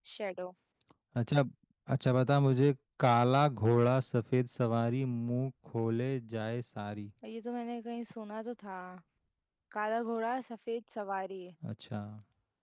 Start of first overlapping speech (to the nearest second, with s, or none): none